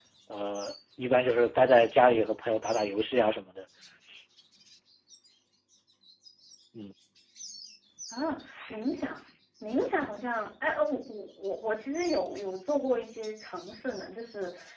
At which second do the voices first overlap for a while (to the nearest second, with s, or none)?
none